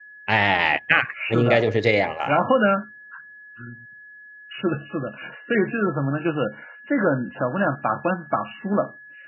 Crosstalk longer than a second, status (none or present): none